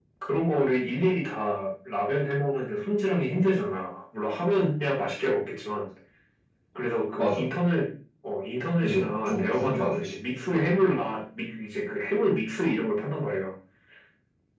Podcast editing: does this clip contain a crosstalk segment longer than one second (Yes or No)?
Yes